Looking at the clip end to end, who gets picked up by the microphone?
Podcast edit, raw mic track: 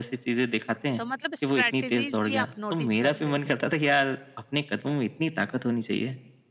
both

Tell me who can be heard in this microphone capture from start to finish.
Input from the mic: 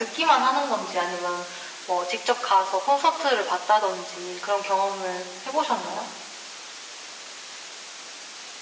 echo only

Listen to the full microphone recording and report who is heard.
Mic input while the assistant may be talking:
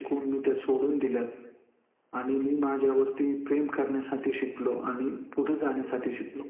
echo only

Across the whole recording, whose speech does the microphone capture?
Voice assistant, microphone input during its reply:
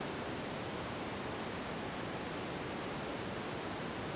neither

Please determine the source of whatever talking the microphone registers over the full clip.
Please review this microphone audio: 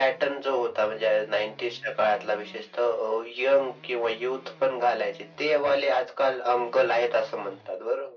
echo only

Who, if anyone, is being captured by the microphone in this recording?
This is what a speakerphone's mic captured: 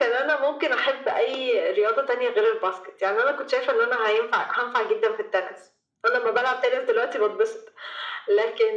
echo only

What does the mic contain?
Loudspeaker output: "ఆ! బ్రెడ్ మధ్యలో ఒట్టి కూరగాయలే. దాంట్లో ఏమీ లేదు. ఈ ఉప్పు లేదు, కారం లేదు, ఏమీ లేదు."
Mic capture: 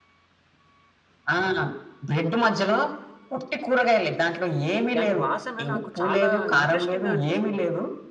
both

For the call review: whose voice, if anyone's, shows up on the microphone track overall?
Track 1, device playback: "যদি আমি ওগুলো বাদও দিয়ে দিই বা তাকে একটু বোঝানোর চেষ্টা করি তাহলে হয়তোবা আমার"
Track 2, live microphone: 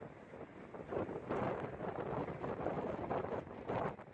neither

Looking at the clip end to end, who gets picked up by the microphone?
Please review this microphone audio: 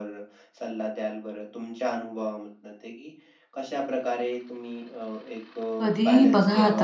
both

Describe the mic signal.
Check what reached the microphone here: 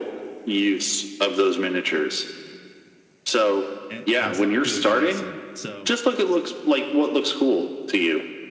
both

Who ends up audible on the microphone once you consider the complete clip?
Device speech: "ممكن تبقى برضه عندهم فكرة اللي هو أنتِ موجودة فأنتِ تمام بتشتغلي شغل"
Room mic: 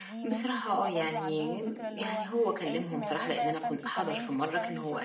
both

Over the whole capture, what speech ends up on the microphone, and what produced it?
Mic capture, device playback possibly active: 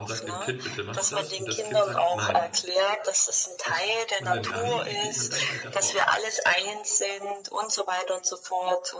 both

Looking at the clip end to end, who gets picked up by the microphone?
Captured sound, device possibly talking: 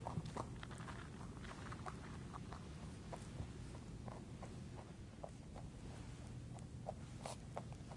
neither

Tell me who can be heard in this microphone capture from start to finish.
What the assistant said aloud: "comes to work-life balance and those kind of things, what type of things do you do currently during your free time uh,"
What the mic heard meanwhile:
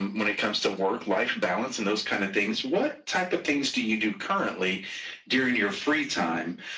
echo only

